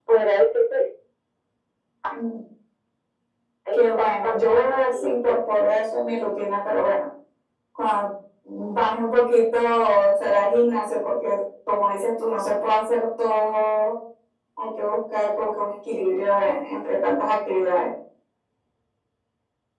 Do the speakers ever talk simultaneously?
Yes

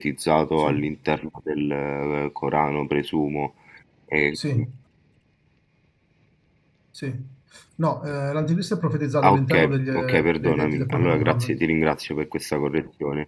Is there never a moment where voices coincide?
No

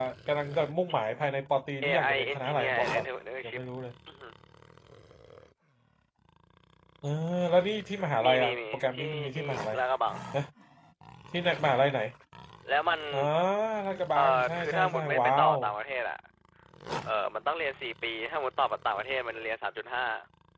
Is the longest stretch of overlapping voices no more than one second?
No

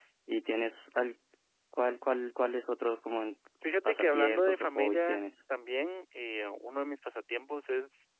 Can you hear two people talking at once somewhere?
Yes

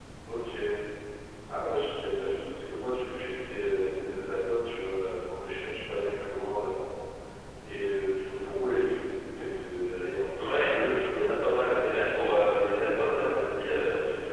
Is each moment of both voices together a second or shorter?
No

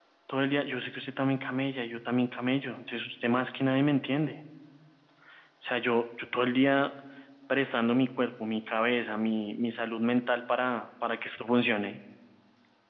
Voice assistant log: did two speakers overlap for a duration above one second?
No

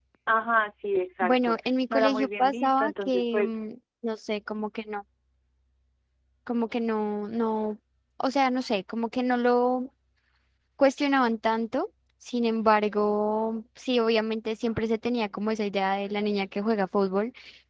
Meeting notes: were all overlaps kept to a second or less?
No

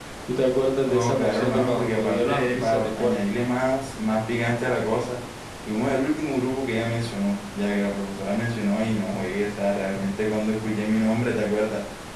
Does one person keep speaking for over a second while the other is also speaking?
Yes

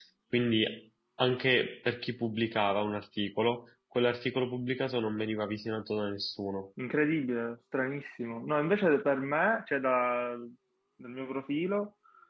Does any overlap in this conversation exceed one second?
No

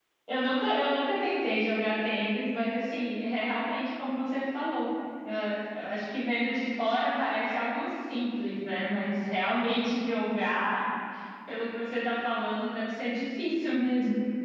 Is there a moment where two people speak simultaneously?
No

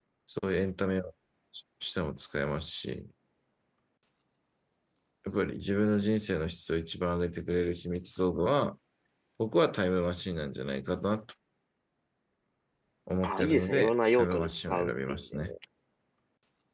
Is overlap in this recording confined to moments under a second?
No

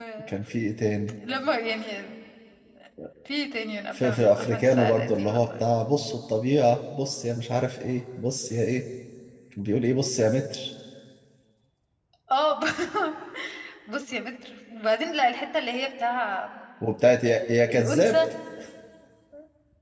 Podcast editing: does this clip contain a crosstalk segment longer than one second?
Yes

